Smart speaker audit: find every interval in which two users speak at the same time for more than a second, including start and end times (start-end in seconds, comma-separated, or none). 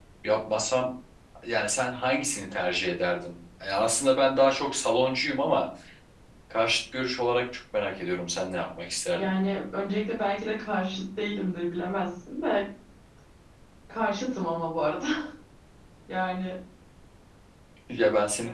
none